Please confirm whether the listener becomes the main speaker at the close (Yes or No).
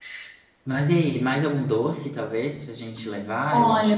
Yes